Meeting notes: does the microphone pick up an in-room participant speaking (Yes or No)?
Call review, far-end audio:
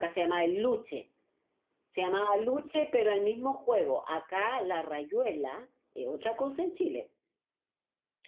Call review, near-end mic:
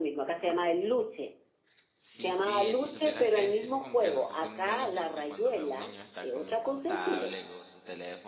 Yes